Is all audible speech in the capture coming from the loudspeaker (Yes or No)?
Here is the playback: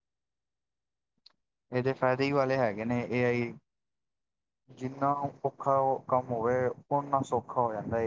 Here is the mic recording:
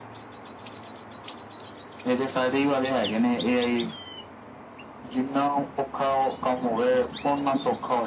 Yes